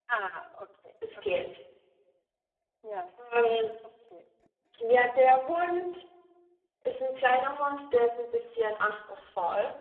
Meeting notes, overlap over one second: none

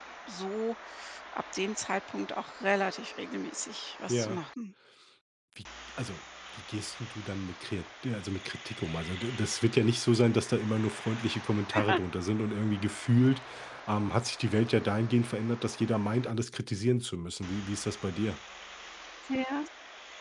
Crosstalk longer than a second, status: none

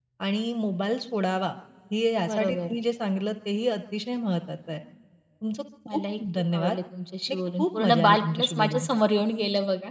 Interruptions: present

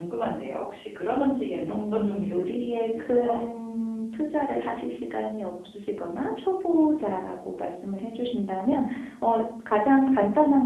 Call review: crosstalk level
present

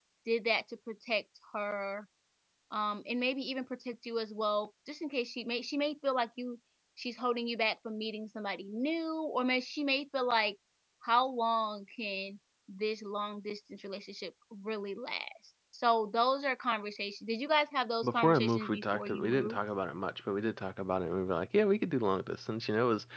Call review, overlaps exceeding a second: present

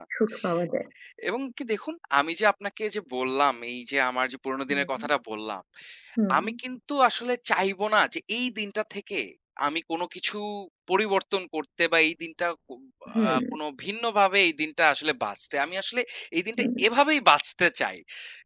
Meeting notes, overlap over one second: none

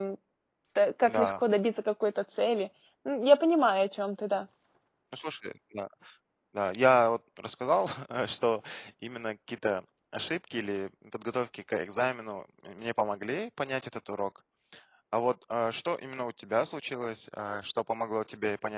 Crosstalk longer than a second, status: none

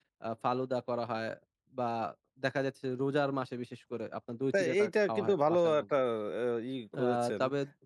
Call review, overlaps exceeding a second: present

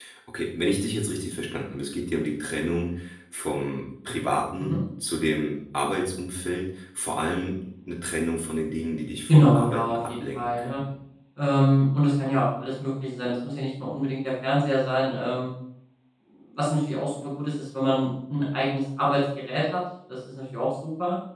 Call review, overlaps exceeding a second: present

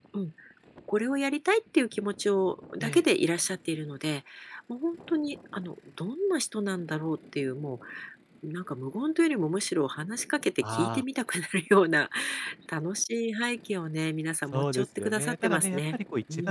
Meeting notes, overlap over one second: present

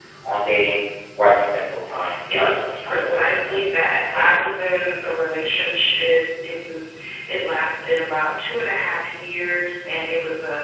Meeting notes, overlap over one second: present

